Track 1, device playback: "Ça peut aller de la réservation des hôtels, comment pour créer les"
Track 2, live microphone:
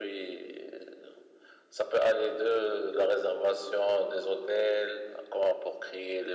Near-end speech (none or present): none